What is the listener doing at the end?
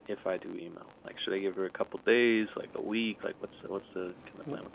taking over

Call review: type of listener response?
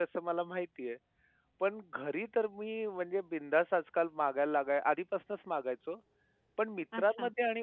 listening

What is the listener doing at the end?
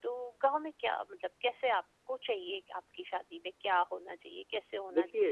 listening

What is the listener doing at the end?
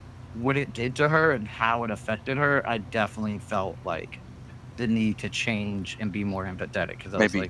taking over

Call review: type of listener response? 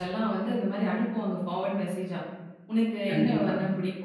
listening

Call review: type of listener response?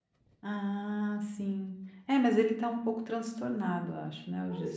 taking over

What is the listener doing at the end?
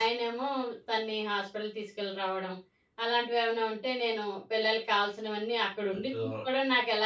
listening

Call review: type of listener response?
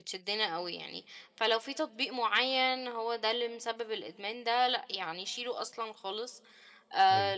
listening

